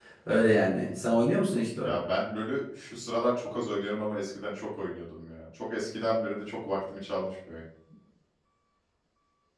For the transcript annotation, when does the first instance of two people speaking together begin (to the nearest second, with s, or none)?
none